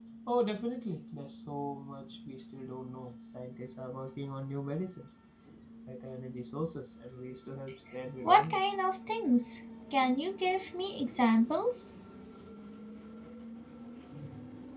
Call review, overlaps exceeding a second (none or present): none